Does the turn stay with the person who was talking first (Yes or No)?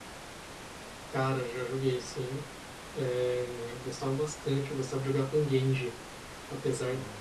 Yes